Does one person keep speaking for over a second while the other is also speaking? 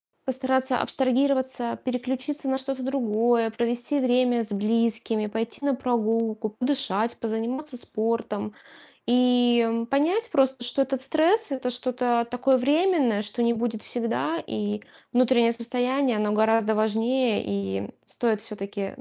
No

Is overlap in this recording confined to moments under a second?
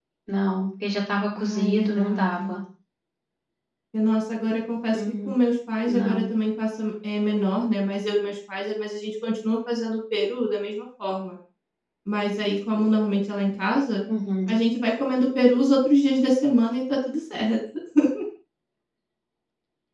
No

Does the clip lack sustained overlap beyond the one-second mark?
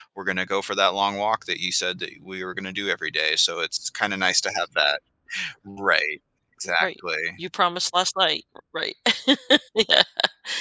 Yes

